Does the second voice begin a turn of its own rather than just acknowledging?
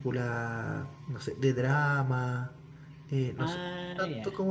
No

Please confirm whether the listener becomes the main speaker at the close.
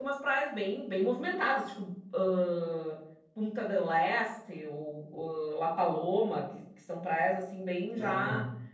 No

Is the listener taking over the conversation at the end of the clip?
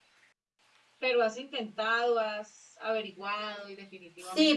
Yes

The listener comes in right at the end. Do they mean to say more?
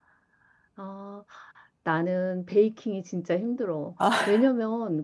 No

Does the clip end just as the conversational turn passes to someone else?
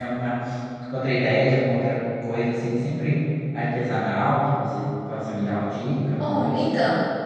Yes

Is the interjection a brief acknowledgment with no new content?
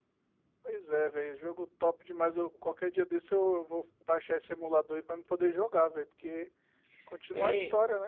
No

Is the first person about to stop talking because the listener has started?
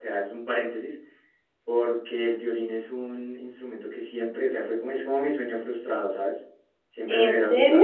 No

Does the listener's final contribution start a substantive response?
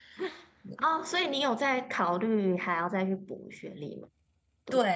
Yes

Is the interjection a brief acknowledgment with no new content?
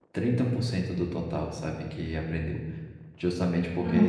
Yes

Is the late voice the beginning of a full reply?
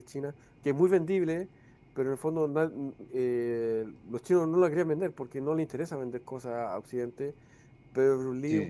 No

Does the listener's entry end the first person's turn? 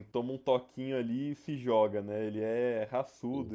No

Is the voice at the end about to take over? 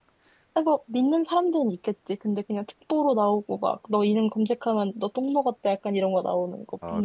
Yes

